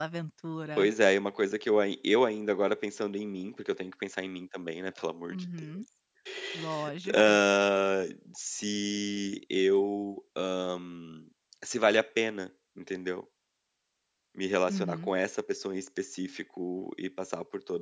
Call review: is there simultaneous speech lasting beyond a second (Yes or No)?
No